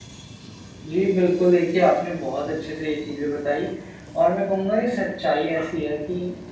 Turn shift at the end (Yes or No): No